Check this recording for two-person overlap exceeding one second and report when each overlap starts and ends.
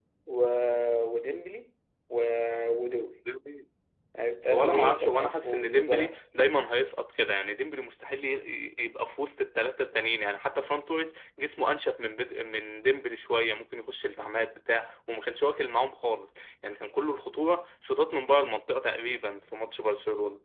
4.5-6.2

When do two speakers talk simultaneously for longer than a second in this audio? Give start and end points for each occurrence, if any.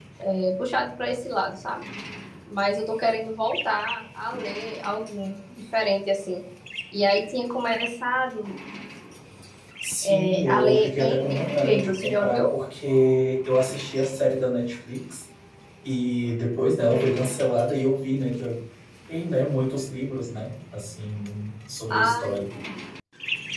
10.1-12.4

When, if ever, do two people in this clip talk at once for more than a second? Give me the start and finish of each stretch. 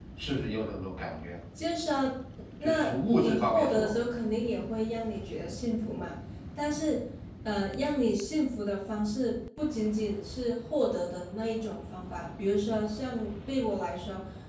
2.6-3.9

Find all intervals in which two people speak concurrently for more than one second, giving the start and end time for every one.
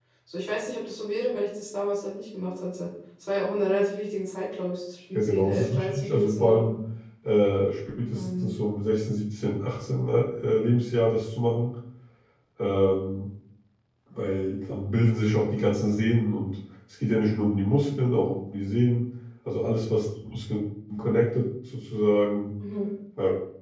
5.1-6.7

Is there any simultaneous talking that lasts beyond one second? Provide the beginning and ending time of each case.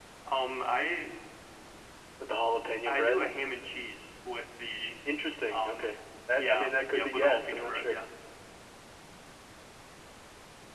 6.4-8.0

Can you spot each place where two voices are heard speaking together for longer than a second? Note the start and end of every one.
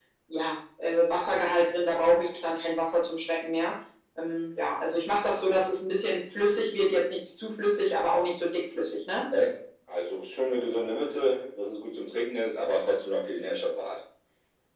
none

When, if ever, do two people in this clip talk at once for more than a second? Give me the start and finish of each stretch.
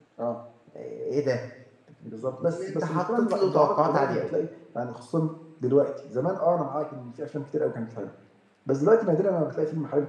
2.4-4.3

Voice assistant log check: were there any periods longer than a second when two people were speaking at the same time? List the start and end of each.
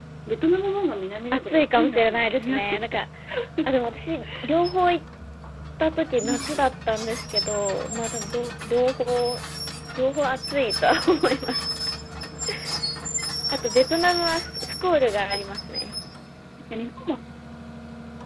1.3-3.0

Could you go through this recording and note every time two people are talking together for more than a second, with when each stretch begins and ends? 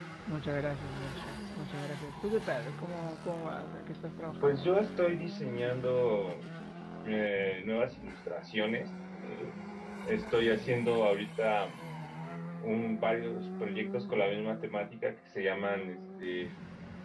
none

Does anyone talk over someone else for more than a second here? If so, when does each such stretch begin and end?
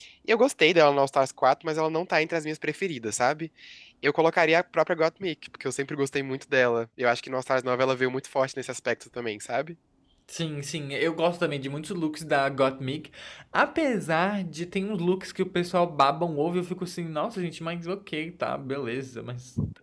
none

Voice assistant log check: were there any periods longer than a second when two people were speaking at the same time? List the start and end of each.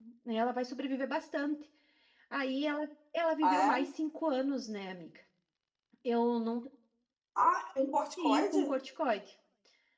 none

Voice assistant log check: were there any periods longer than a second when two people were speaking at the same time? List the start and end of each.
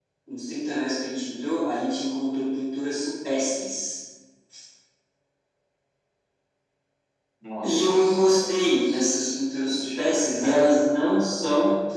7.6-10.6

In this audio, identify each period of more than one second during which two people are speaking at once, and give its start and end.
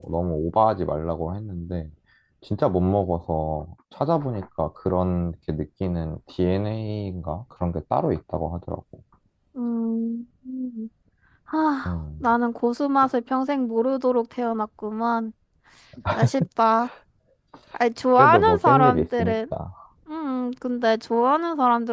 18.2-19.4

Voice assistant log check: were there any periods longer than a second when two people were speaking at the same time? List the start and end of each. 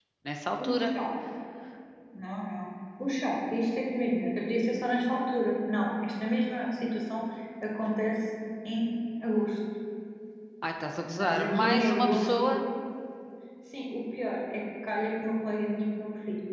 11.2-12.5

